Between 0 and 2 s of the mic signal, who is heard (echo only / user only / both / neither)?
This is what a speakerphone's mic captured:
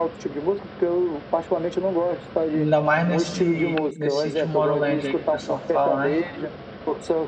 echo only